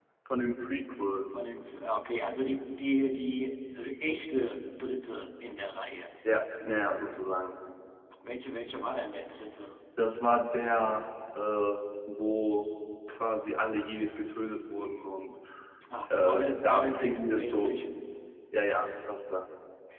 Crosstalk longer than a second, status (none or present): present